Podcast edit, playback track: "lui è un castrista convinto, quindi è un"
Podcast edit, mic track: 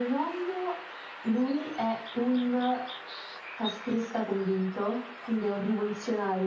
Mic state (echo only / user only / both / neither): echo only